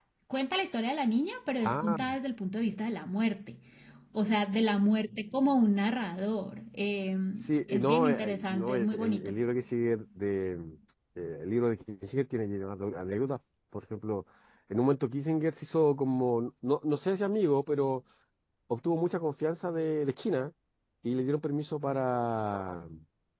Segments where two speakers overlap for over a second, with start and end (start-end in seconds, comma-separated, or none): 7.7-9.4